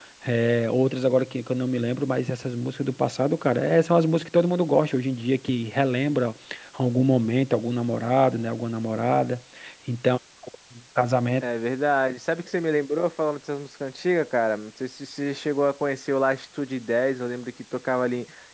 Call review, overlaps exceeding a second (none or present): none